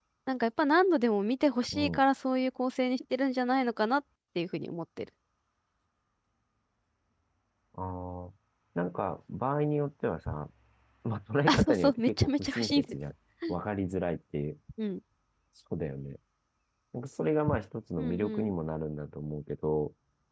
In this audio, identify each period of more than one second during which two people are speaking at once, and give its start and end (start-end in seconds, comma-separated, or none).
11.5-12.9